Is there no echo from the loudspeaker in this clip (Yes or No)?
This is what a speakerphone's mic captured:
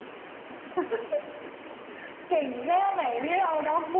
No